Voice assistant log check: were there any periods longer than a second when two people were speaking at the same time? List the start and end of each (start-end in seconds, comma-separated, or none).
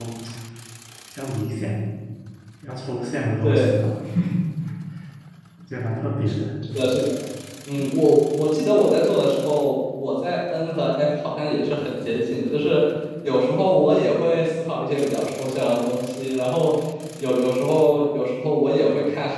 none